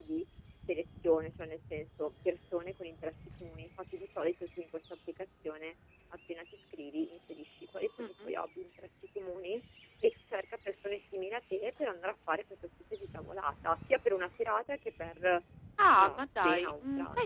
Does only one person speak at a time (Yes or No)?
No